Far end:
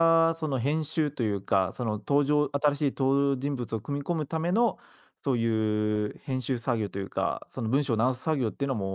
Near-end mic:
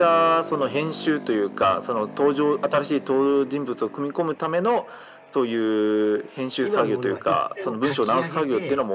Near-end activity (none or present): present